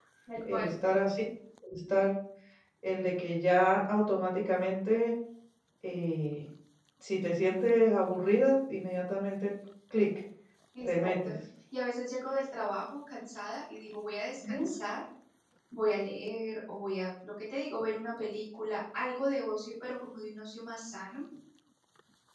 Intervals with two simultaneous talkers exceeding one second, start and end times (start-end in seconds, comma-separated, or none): none